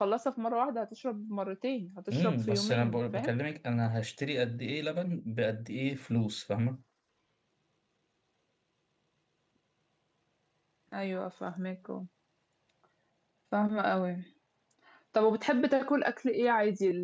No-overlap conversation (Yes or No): No